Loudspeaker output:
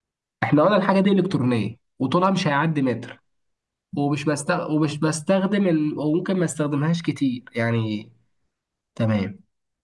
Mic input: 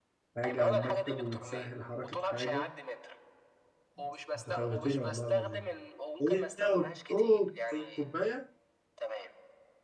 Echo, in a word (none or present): present